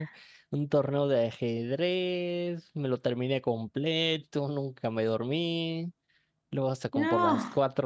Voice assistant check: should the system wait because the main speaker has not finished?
Yes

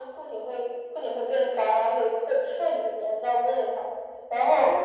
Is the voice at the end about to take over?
No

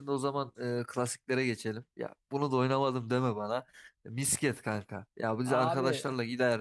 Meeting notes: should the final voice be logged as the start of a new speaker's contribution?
No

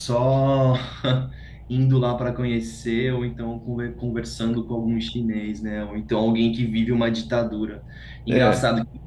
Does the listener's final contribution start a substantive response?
No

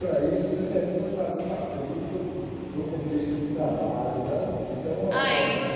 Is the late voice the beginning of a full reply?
Yes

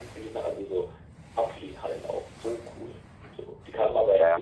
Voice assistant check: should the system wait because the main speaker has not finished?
No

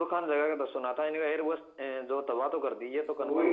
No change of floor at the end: No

